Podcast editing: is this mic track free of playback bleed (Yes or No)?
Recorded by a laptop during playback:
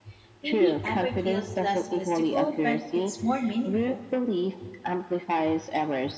No